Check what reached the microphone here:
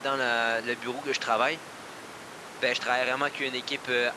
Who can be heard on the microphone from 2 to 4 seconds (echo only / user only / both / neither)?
user only